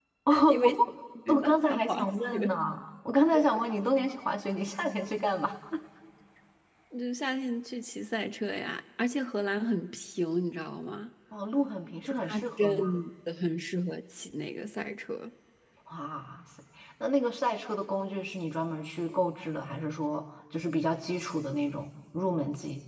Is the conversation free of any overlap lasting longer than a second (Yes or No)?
No